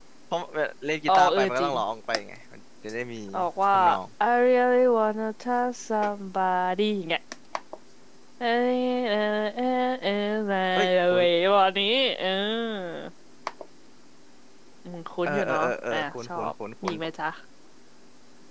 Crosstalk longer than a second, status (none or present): present